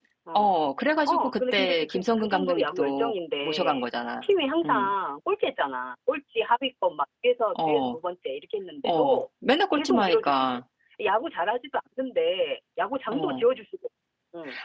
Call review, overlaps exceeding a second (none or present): present